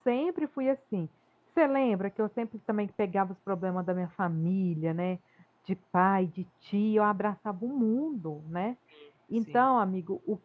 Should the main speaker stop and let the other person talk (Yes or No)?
No